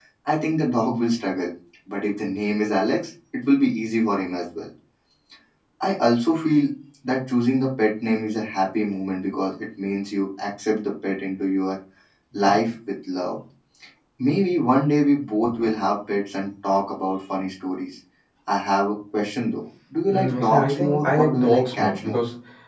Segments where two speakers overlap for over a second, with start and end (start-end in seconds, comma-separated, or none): 20.1-22.2